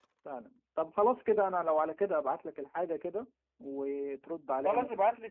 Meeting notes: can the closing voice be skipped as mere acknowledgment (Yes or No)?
No